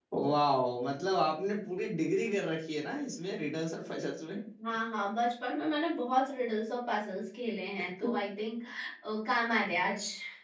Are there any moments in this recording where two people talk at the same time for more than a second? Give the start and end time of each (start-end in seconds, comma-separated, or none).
none